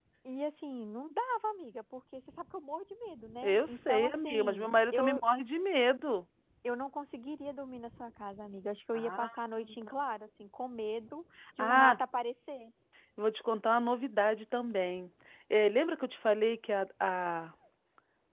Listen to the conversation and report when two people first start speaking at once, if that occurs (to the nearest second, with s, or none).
3 s